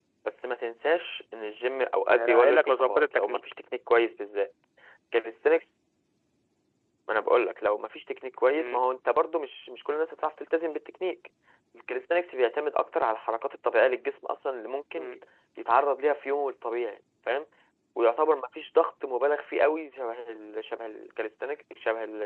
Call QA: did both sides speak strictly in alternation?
No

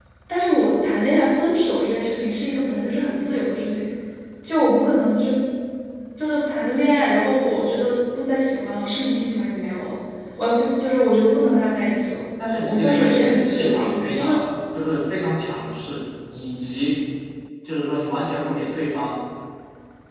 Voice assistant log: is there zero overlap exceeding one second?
No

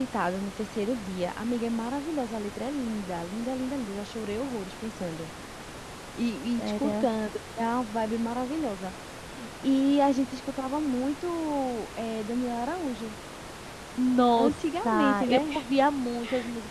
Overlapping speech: Yes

